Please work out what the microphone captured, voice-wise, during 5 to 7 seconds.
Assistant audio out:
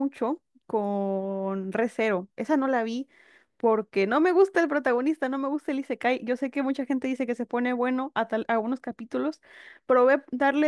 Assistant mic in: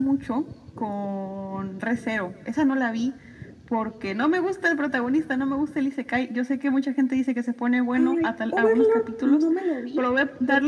echo only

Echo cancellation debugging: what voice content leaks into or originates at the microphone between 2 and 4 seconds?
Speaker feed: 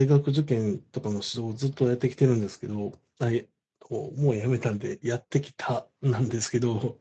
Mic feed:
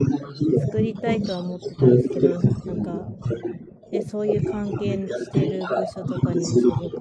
both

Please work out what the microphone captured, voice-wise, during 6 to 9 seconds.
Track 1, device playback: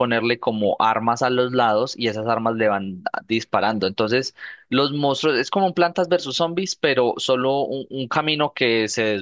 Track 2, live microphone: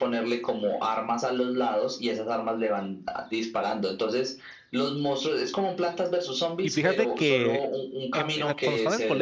both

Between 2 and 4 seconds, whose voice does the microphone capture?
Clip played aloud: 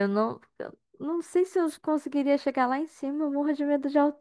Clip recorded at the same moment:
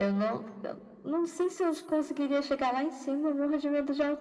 echo only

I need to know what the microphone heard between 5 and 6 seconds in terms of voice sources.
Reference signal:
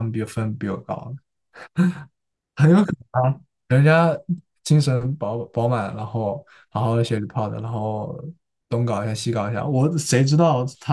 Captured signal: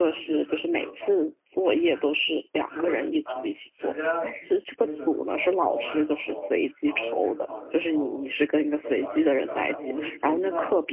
both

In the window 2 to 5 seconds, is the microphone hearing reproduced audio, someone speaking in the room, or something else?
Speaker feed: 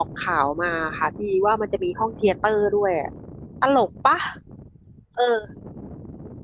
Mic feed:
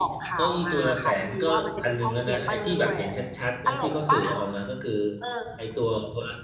both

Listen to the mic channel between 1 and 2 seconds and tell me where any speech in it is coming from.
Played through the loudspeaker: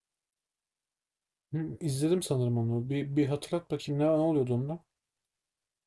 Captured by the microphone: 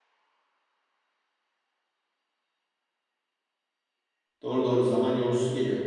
neither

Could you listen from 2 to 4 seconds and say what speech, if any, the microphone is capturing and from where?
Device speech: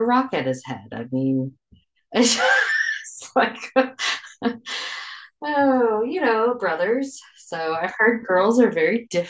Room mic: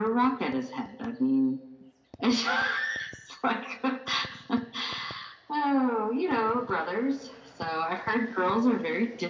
echo only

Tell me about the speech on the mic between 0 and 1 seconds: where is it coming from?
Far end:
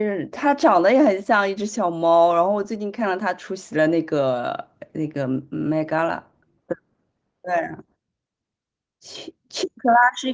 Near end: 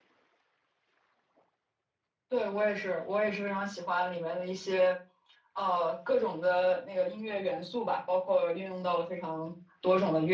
neither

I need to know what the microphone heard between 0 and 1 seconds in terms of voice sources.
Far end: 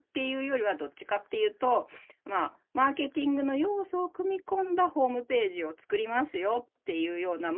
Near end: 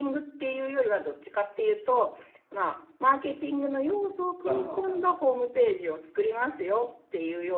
echo only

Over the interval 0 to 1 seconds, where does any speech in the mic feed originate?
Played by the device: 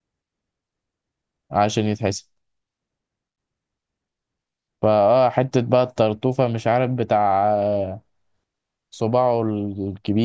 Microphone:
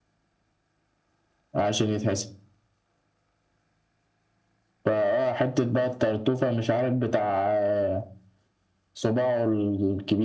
neither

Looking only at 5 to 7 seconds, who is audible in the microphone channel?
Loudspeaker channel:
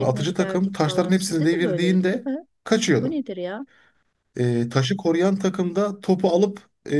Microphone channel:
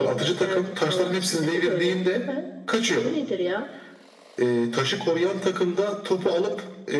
echo only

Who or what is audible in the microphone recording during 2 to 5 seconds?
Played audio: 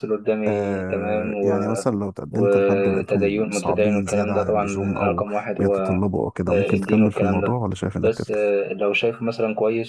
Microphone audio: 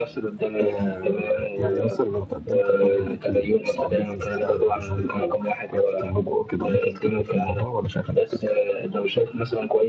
echo only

